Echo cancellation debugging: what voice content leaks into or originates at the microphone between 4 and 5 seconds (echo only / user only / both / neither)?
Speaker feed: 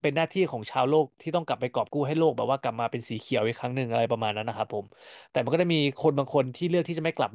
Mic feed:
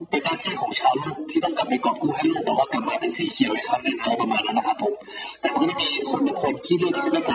echo only